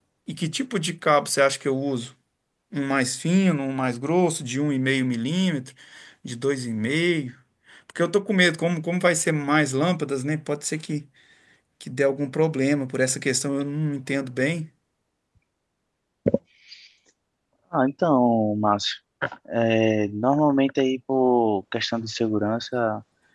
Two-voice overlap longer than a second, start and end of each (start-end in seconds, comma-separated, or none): none